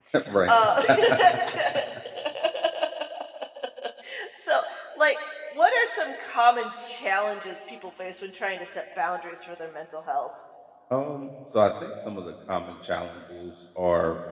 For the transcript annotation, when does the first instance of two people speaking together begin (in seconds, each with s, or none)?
none